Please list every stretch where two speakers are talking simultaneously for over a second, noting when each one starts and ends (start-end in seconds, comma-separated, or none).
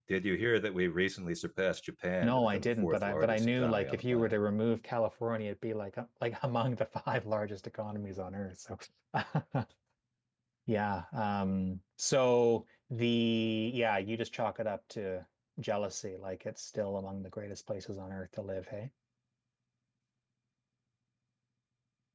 2.2-4.4